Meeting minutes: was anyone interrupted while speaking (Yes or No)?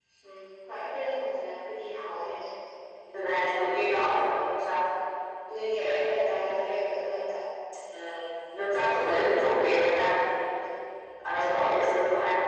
No